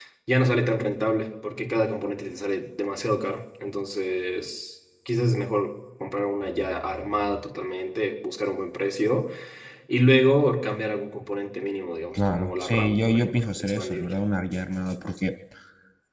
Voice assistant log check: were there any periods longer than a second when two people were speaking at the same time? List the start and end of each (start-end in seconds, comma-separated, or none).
12.1-14.1